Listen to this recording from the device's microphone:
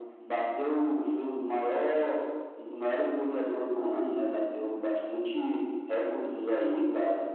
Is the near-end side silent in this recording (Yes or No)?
Yes